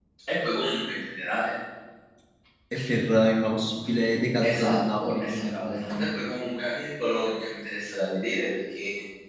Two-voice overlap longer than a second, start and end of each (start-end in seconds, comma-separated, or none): 4.4-6.2